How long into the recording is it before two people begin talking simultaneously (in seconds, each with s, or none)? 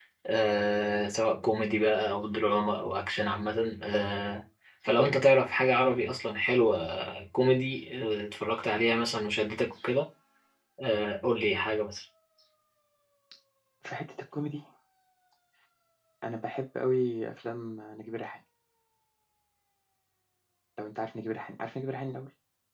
none